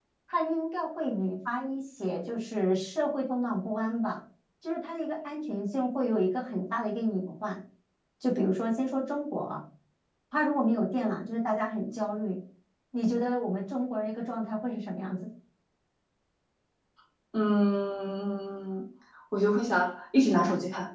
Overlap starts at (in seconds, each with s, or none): none